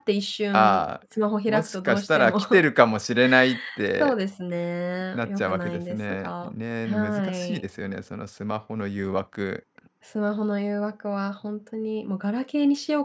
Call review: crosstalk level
present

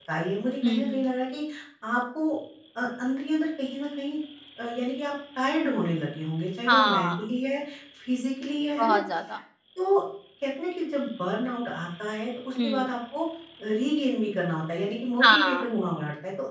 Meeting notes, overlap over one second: none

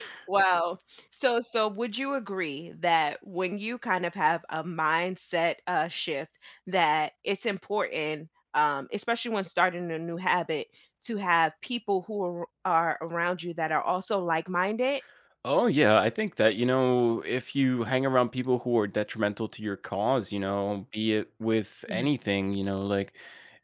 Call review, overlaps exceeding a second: none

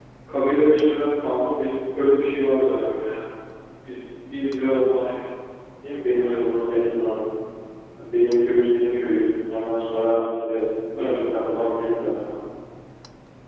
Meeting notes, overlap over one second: none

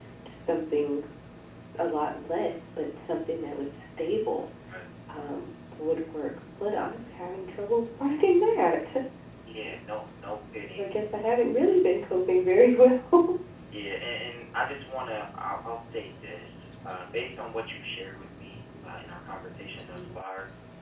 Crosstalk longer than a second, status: none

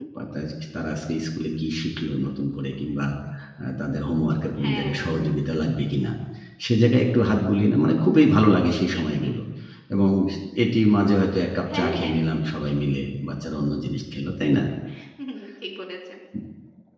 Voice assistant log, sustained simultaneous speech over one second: none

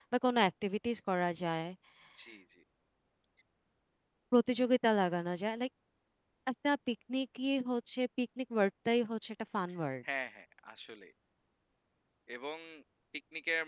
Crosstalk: none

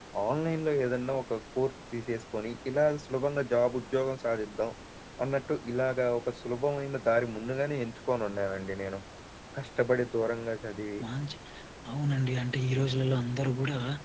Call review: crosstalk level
none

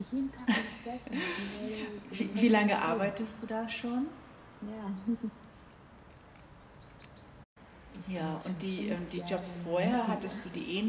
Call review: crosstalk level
present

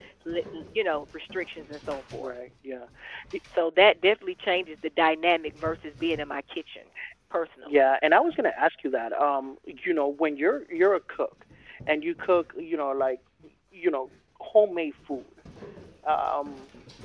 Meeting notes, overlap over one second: none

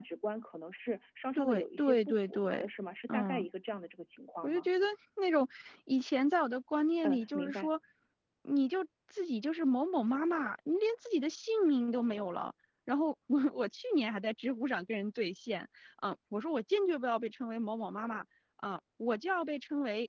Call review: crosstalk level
present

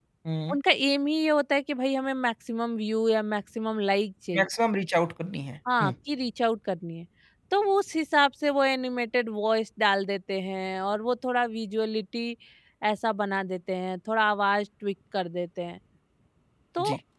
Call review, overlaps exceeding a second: none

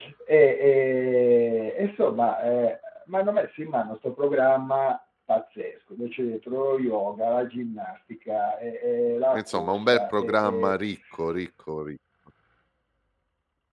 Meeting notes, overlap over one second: present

